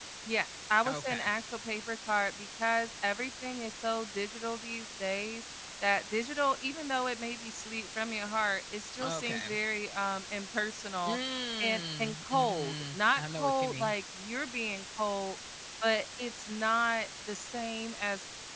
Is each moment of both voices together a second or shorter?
No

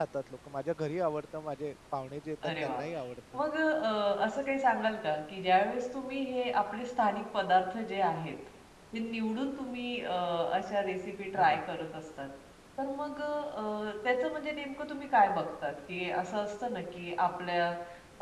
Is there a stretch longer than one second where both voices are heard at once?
No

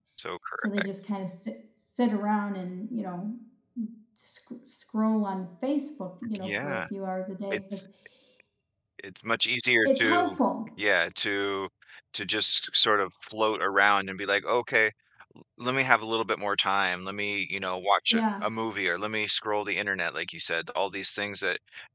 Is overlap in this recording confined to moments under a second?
Yes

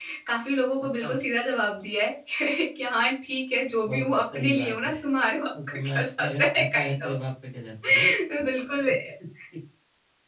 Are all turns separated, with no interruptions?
No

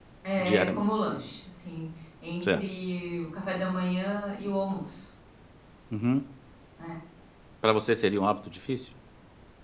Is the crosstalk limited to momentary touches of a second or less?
Yes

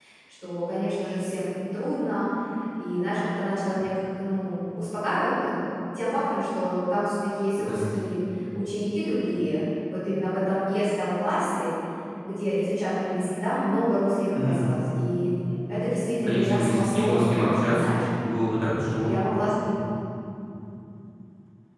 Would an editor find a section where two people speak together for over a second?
Yes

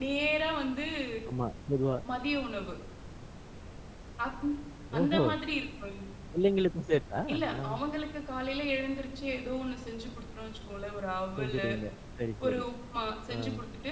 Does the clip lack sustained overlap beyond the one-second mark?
Yes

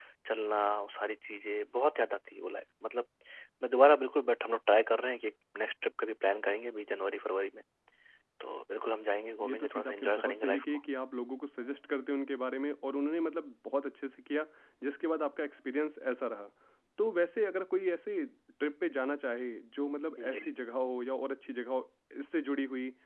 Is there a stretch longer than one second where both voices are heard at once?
Yes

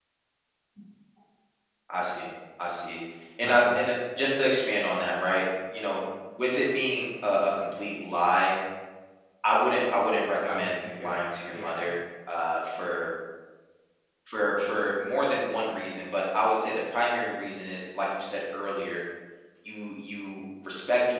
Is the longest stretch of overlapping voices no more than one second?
No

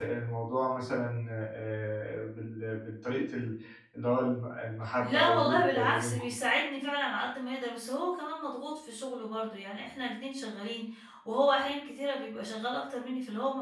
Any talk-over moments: Yes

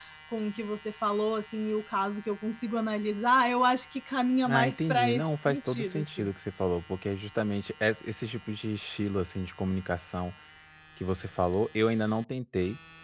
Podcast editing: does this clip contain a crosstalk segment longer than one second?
Yes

